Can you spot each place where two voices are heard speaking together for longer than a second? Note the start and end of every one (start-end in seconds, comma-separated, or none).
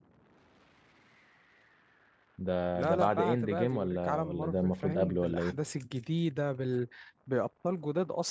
2.7-5.6